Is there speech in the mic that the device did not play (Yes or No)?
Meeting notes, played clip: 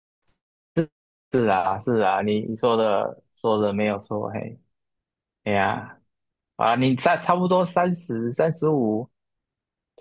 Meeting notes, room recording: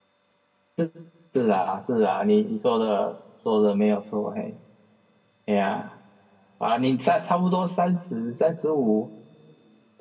No